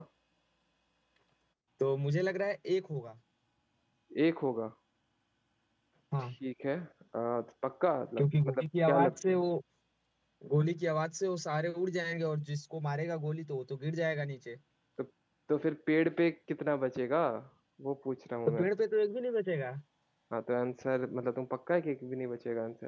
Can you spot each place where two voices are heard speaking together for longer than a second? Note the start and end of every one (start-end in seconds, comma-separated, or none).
8.2-9.4